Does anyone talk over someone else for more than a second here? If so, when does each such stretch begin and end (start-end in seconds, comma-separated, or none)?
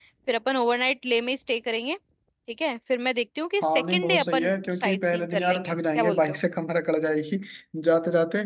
3.6-6.4